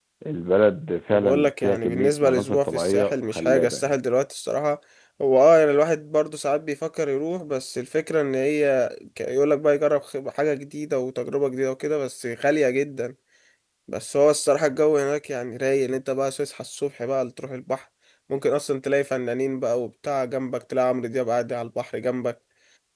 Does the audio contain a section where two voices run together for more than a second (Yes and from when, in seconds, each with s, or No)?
Yes, from 1.1 s